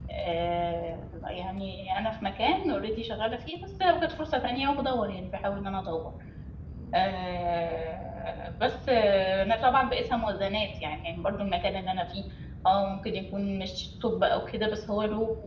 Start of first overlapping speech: none

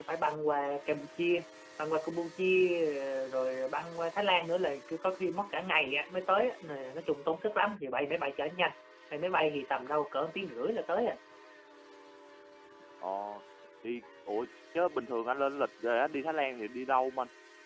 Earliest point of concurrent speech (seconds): none

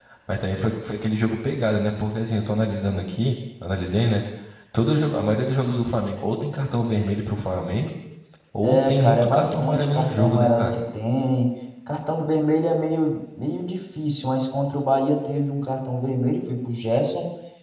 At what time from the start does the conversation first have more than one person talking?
8.6 s

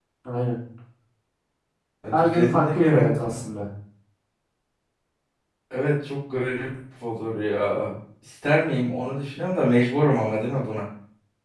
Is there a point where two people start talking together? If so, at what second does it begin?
2.1 s

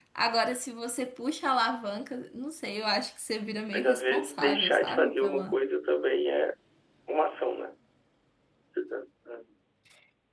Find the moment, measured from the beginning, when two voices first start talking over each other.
3.7 s

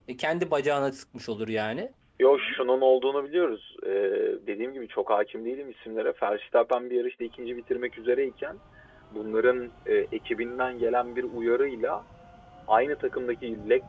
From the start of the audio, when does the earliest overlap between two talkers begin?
none

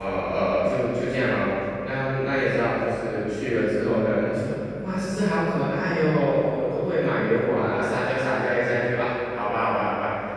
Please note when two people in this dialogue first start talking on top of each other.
none

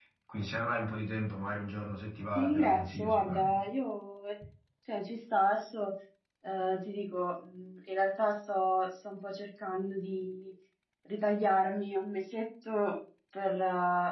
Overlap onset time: 2.4 s

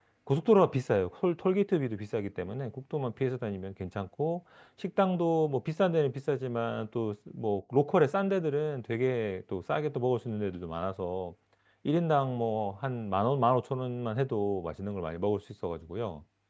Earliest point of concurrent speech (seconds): none

